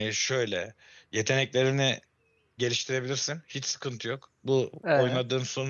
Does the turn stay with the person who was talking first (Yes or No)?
Yes